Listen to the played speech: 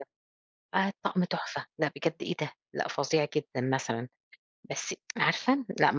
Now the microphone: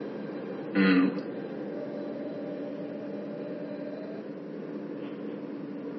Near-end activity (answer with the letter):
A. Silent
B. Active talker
B